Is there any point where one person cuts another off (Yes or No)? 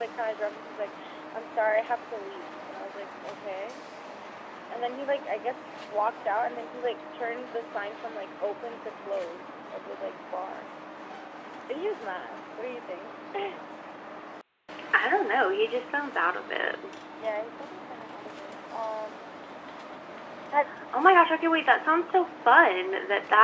No